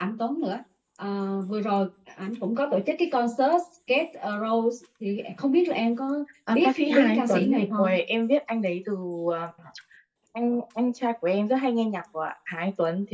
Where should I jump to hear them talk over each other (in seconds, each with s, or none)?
6.5 s